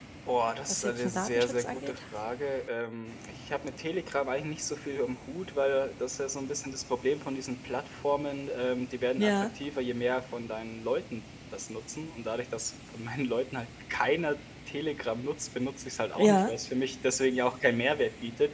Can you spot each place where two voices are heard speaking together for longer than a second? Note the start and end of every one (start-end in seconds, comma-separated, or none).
0.7-2.0